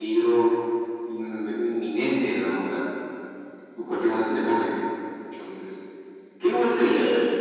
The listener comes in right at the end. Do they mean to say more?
Yes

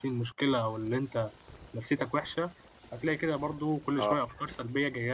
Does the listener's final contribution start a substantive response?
No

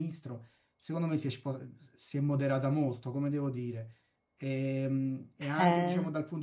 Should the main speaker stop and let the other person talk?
No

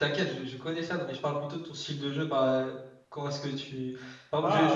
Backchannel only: Yes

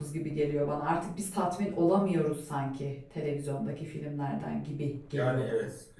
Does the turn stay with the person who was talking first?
No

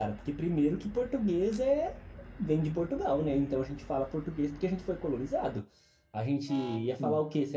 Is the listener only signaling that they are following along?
Yes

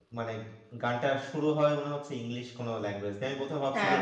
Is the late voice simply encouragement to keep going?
Yes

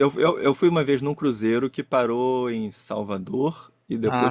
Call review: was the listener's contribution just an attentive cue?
Yes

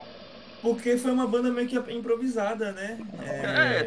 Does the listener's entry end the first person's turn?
Yes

